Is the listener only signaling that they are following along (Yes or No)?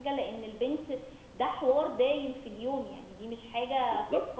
No